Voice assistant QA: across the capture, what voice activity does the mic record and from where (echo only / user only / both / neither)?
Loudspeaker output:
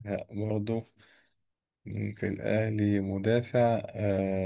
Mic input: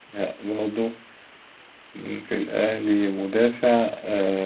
echo only